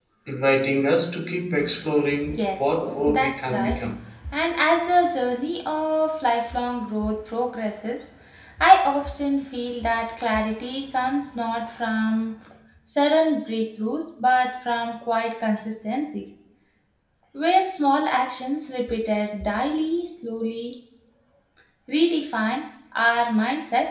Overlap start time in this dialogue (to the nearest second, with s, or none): 2 s